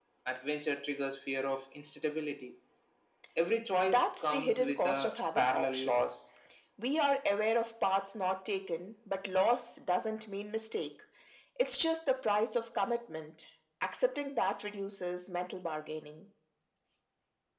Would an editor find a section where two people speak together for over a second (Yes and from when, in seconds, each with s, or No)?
Yes, from 3.8 s